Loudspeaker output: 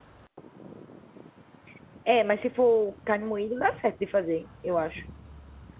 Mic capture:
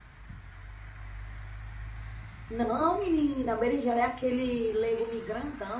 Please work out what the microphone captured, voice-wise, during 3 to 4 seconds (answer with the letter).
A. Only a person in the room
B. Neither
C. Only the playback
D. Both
A